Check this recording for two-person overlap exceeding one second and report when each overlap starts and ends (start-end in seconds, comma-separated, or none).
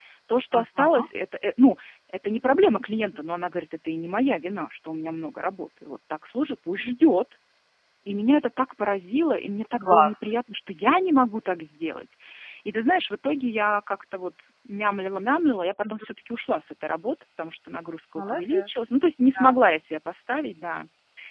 none